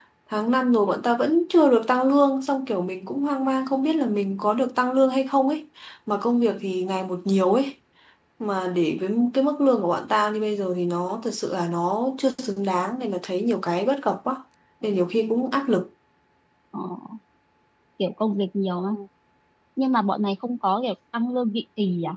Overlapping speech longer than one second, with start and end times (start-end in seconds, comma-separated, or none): none